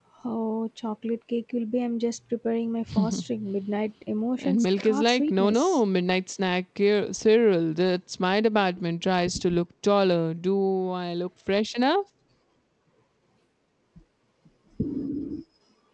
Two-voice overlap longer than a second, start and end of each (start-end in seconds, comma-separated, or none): 4.4-5.8